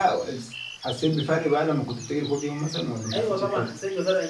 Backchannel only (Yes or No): No